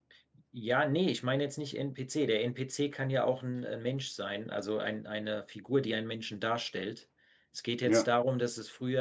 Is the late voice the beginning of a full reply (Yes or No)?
No